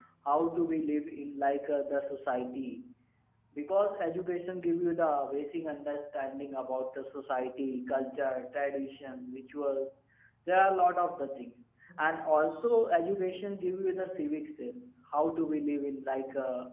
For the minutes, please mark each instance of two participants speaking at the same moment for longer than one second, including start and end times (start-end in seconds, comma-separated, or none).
none